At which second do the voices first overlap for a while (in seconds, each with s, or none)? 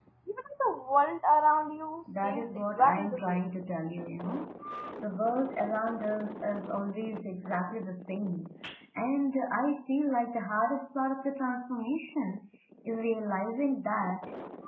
2.1 s